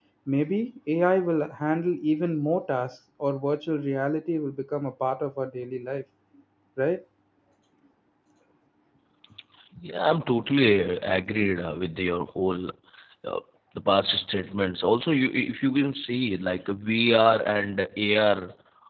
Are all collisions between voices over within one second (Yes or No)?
Yes